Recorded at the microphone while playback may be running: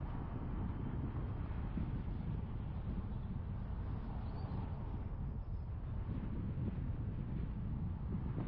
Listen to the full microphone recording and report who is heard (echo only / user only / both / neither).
neither